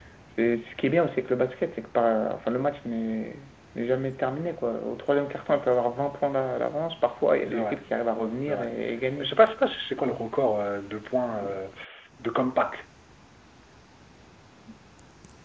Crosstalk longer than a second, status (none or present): none